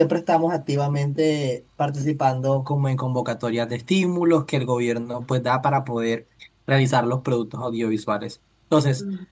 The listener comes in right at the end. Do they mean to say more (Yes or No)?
No